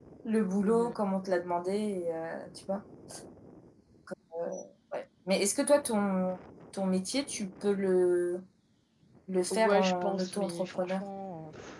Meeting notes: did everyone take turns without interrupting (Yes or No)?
No